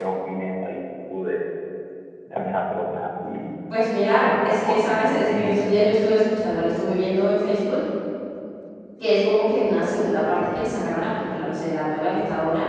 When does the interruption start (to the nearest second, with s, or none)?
4 s